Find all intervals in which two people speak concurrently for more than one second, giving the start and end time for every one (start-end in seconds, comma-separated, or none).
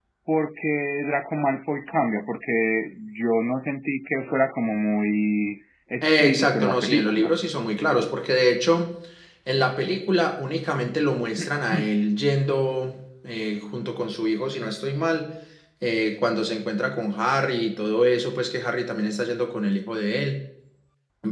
6.0-7.3